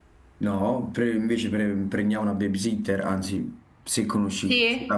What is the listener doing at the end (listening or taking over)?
taking over